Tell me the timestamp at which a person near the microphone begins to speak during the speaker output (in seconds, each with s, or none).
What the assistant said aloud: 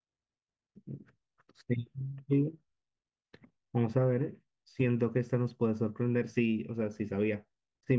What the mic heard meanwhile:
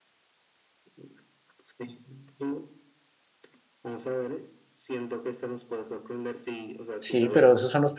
7.0 s